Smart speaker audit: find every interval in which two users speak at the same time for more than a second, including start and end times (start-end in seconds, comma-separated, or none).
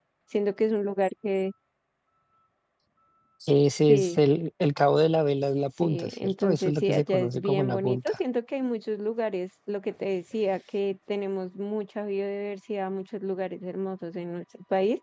5.8-8.2